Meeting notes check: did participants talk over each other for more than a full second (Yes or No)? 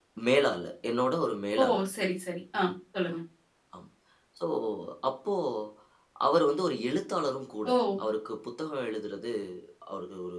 No